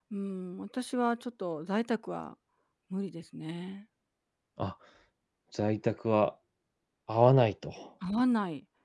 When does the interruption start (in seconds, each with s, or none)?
none